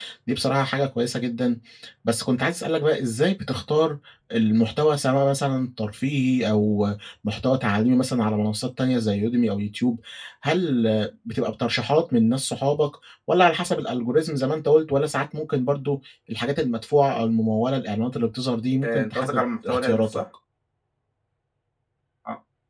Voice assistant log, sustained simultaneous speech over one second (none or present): present